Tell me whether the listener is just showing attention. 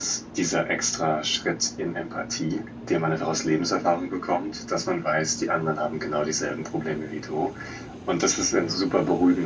Yes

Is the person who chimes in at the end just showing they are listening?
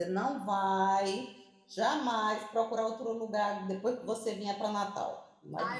No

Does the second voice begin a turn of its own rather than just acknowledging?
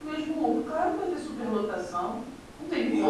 Yes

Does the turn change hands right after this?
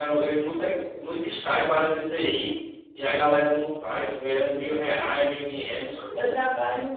Yes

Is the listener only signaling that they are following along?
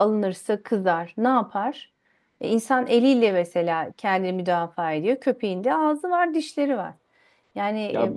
No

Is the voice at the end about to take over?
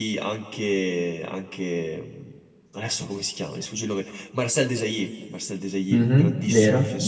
Yes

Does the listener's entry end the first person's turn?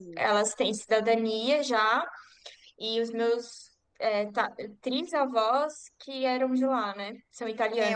Yes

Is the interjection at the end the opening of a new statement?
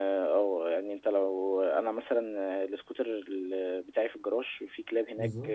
No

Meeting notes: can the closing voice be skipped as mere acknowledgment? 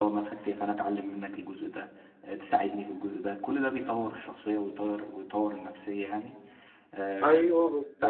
No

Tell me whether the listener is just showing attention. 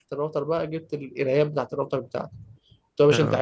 Yes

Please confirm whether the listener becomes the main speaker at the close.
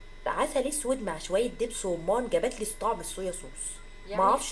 Yes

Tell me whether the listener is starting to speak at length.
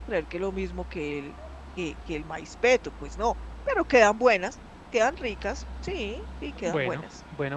Yes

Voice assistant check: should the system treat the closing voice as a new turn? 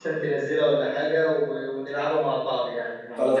Yes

